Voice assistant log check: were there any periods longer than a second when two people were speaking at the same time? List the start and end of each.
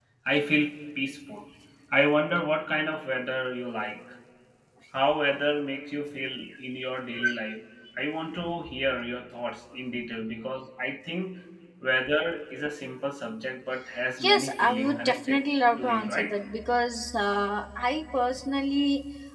14.2-15.4

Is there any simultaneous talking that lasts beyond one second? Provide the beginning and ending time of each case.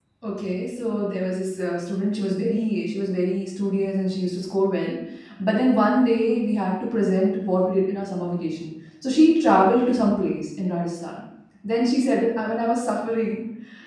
none

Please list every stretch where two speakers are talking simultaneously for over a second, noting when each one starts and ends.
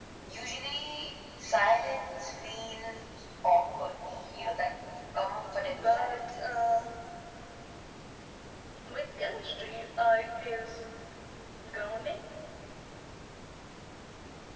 5.6-6.8

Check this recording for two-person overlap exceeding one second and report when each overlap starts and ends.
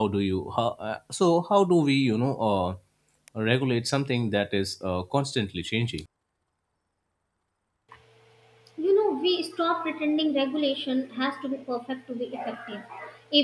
none

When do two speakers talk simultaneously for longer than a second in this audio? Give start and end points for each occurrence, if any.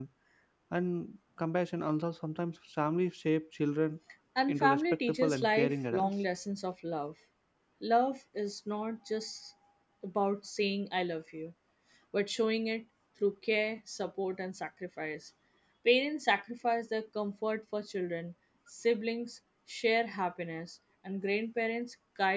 4.5-6.1

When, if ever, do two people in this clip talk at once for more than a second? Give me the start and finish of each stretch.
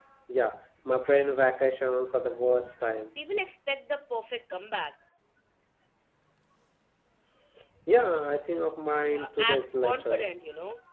9.1-10.2

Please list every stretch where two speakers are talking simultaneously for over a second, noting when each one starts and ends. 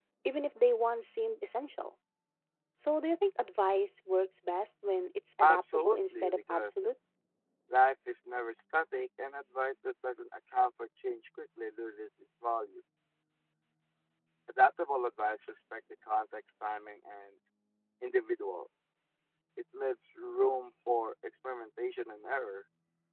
5.4-6.7

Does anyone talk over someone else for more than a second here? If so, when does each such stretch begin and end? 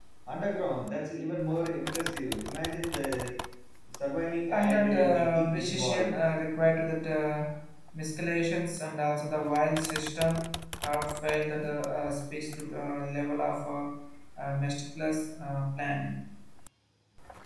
4.5-6.1

